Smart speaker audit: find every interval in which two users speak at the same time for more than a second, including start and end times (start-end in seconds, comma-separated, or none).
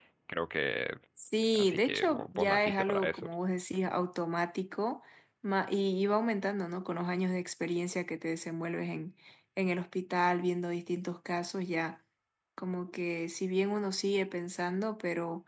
1.5-3.3